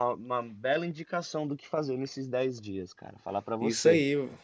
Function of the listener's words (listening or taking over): taking over